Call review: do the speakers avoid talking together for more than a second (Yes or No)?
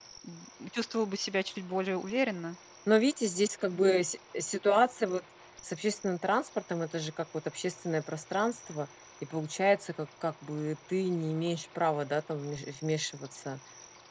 Yes